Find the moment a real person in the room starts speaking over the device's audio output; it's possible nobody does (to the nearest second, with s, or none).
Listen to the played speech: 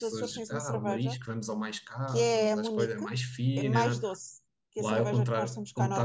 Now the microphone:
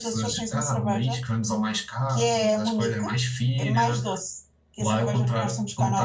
none